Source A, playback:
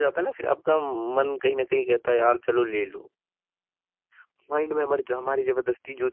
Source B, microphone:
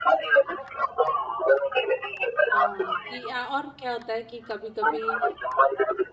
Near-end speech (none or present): present